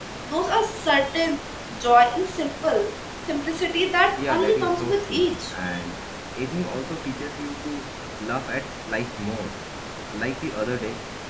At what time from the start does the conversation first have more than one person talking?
4 s

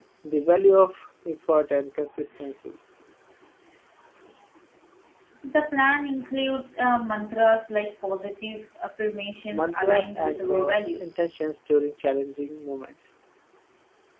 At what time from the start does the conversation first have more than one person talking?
9 s

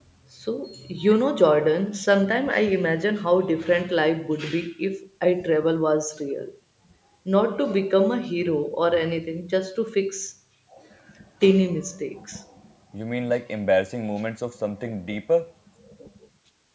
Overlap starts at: none

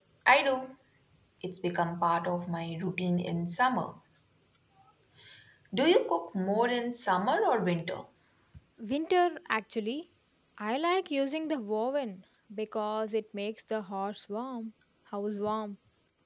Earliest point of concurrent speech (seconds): none

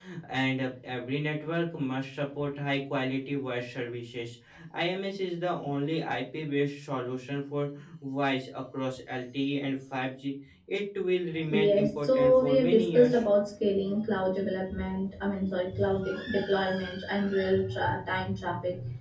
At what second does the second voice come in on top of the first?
11 s

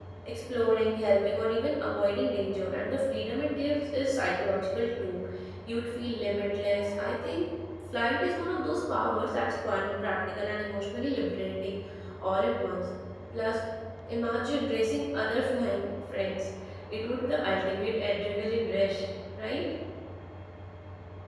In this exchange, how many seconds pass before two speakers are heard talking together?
none

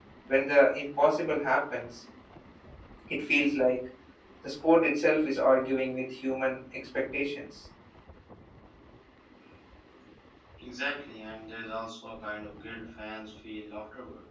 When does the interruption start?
none

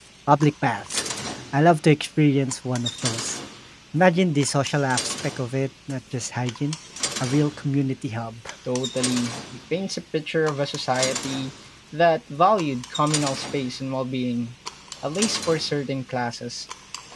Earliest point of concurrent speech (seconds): none

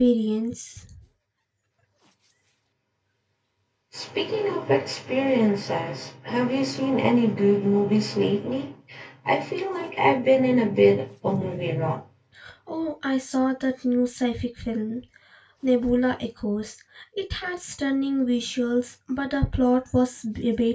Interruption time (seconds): none

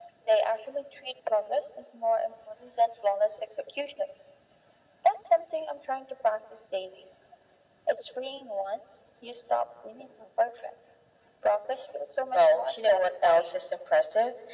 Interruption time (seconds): 12 s

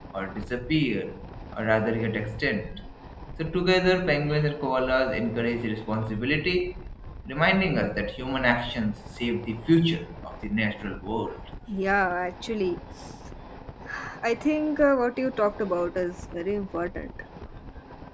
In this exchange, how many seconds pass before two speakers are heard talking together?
none

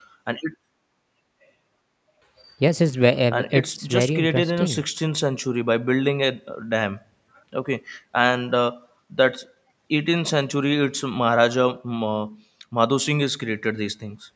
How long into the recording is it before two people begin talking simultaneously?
3 s

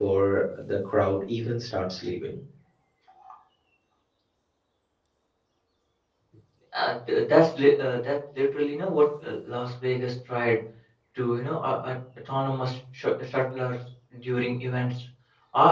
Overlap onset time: none

